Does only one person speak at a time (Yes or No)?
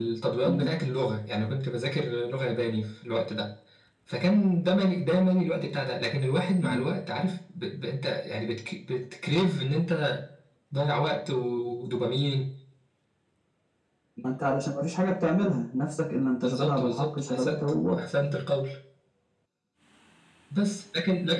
No